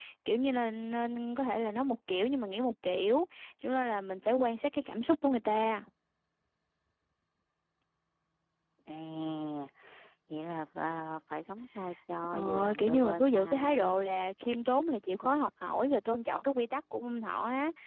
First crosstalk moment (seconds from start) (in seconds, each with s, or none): 12.2 s